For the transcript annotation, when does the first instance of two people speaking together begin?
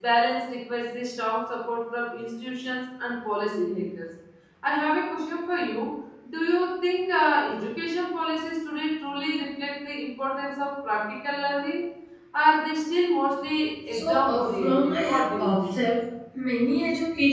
13.9 s

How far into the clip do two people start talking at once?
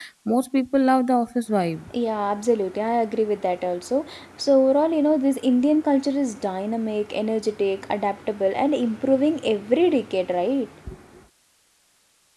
none

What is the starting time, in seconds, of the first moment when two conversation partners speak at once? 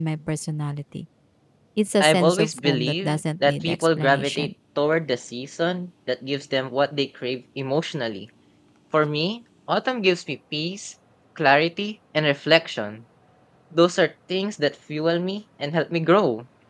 2.0 s

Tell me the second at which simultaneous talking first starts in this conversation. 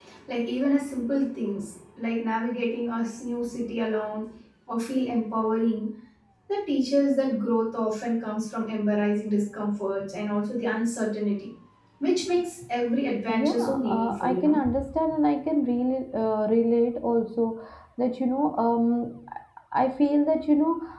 13.3 s

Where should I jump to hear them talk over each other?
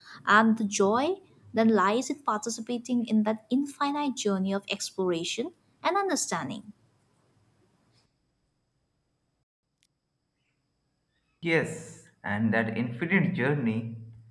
none

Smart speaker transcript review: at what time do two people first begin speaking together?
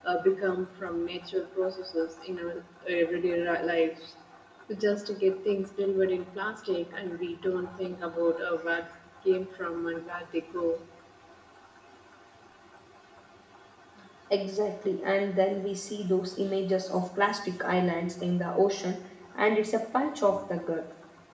none

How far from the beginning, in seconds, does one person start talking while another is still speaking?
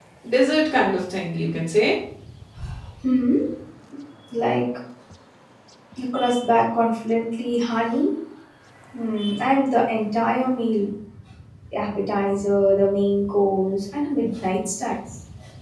none

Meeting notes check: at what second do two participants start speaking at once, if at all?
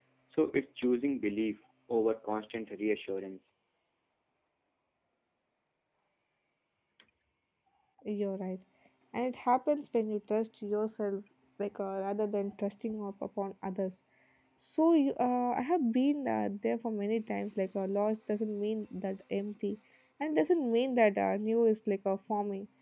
none

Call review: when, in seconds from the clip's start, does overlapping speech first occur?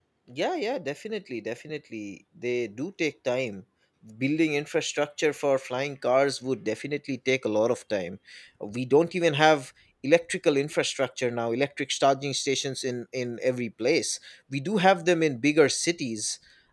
none

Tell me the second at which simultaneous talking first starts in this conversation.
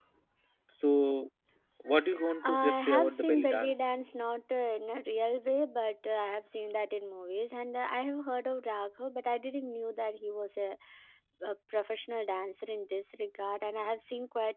2.4 s

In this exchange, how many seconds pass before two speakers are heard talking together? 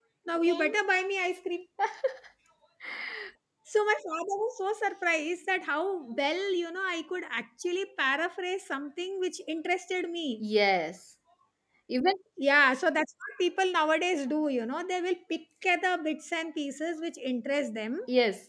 none

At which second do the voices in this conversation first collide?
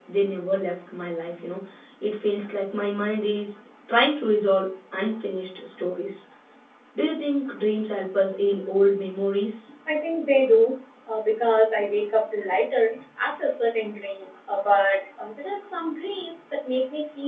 none

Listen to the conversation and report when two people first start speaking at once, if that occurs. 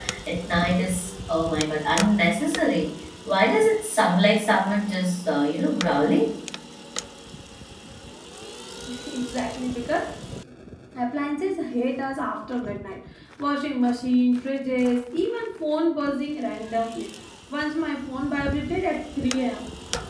none

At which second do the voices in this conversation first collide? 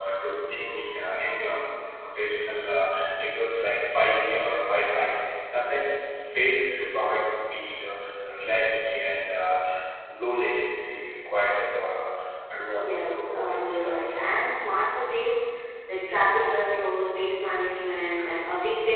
12.7 s

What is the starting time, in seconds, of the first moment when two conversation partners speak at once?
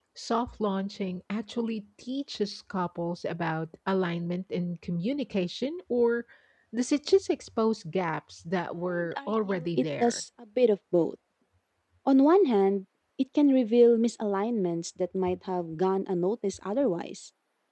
8.8 s

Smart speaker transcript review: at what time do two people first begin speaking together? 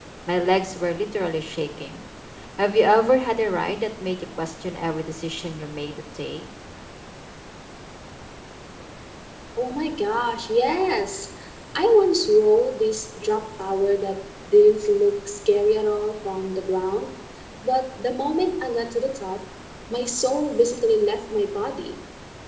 none

